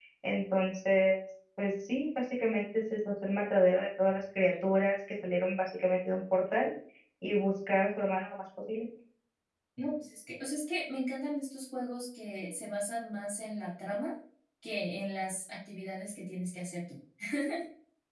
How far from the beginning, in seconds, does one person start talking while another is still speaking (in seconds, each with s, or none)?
none